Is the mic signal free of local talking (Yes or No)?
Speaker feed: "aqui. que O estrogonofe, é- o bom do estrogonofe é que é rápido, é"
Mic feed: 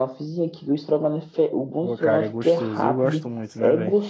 No